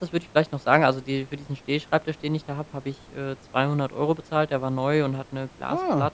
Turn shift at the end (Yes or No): No